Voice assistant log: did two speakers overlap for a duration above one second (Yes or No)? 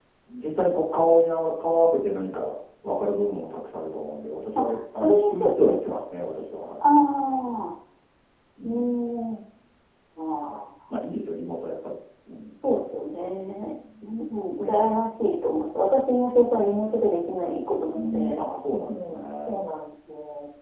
Yes